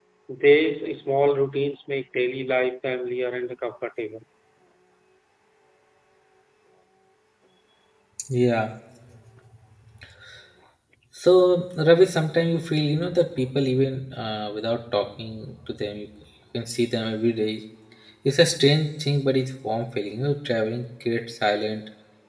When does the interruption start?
none

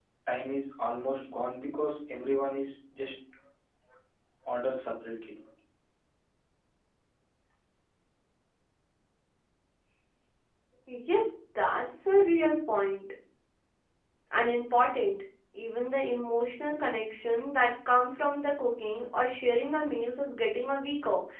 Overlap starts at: none

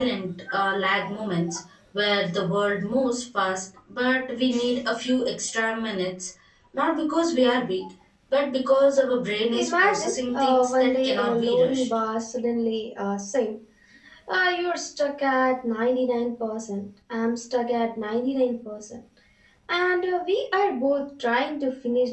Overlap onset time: 9.5 s

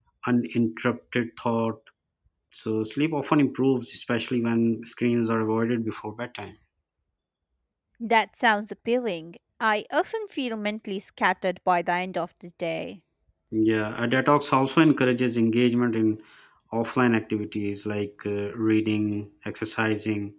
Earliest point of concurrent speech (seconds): none

